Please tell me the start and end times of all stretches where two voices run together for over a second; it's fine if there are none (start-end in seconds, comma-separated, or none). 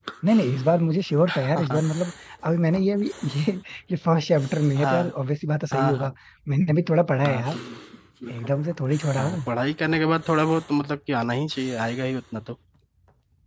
none